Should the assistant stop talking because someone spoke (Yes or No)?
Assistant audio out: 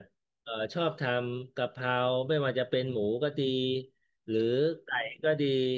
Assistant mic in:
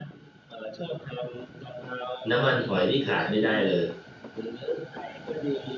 Yes